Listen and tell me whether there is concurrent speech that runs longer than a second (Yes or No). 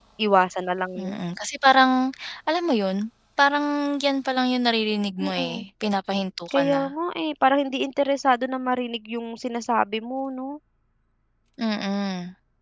No